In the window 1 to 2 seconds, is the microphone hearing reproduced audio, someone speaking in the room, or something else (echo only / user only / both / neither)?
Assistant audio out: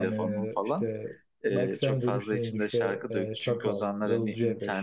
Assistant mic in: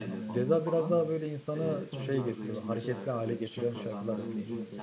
both